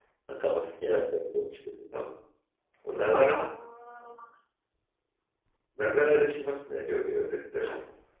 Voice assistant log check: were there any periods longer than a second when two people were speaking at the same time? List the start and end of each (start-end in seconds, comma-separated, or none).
none